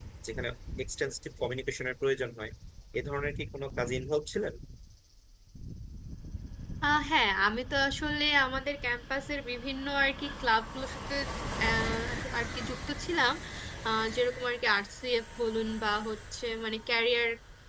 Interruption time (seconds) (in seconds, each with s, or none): none